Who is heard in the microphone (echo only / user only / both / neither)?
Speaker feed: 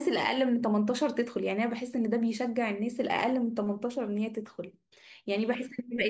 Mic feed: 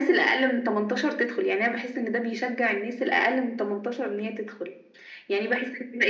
echo only